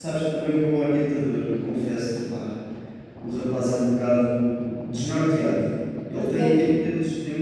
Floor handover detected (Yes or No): No